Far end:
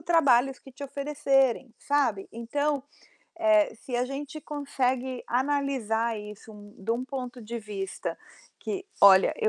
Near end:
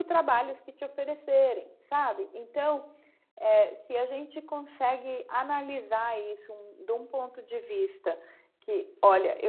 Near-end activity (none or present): none